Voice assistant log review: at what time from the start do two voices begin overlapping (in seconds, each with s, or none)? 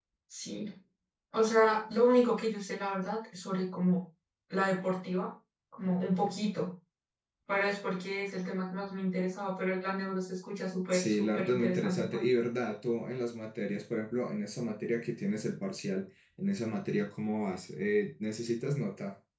10.9 s